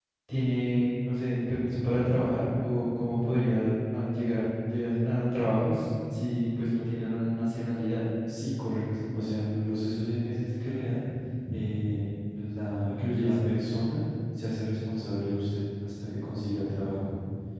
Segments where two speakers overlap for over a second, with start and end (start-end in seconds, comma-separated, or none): none